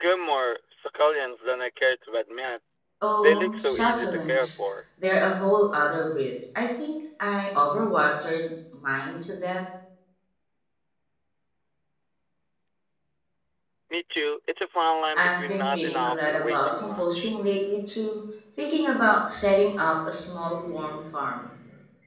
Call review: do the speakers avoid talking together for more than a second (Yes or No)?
No